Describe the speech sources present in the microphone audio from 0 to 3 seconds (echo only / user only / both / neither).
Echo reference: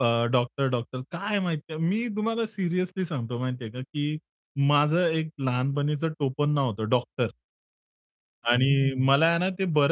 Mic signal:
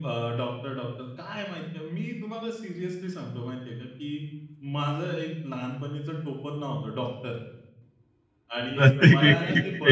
echo only